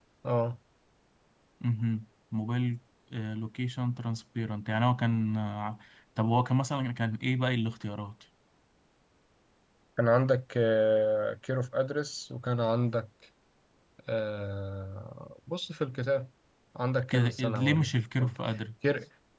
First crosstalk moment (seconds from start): 17.1 s

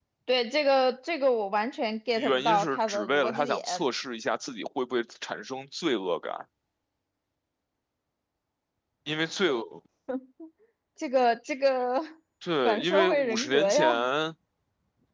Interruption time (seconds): 2.2 s

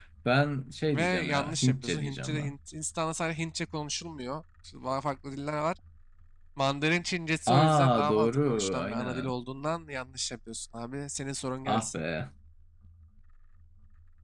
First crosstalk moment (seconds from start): 0.9 s

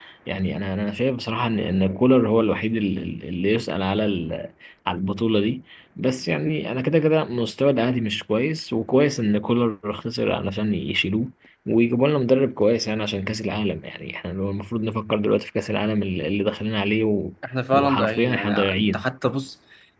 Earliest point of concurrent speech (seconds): 17.7 s

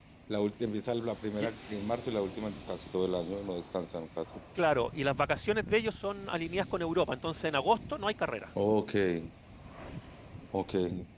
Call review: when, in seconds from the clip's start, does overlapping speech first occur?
none

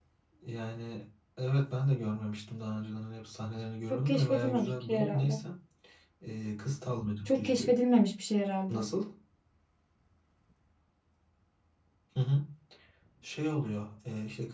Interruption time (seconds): 3.9 s

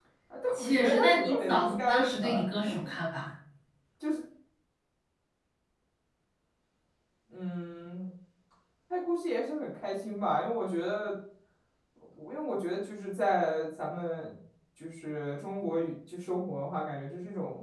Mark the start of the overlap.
0.5 s

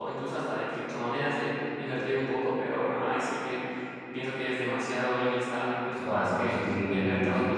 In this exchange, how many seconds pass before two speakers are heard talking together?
6.0 s

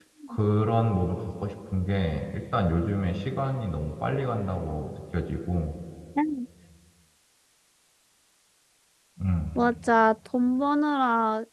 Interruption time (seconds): none

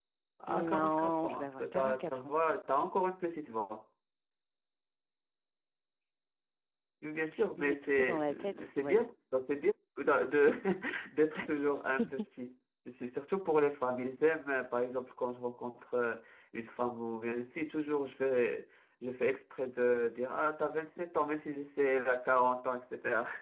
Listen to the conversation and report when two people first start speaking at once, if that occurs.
0.7 s

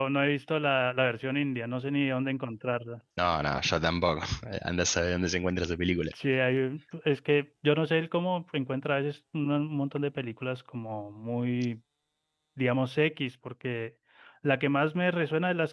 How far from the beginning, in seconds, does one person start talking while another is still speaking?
none

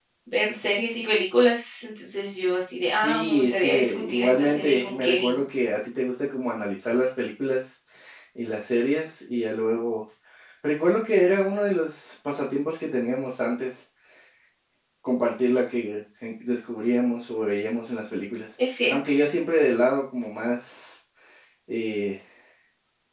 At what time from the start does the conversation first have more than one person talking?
2.8 s

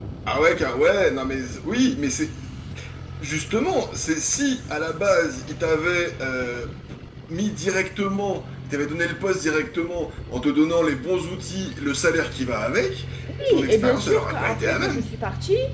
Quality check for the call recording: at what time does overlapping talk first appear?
13.5 s

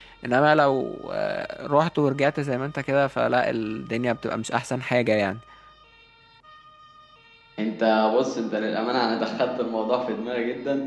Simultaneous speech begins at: none

